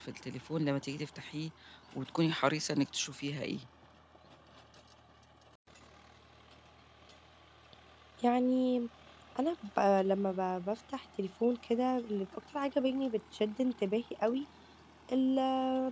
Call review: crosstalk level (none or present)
none